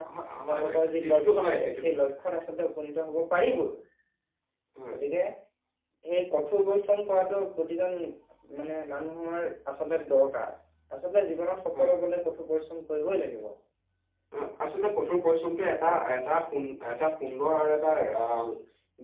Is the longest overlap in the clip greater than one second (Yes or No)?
Yes